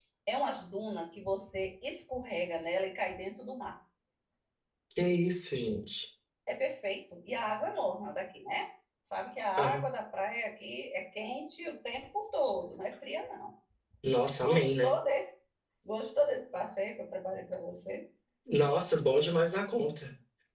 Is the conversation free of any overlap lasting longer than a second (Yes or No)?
Yes